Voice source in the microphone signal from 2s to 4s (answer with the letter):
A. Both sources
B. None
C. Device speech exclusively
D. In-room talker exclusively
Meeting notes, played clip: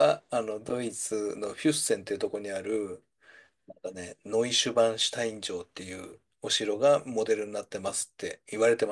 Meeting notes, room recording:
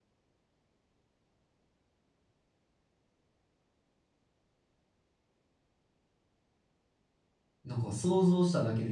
B